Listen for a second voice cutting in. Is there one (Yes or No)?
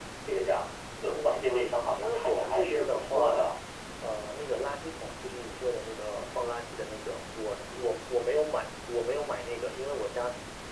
Yes